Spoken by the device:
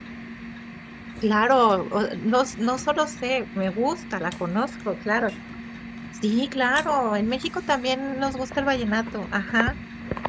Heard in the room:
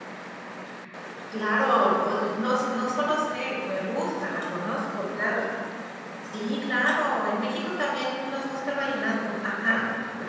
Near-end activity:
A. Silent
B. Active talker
A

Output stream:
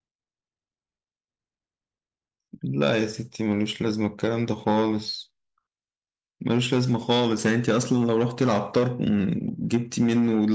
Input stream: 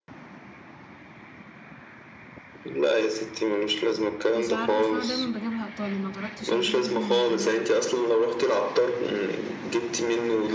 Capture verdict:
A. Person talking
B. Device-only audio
A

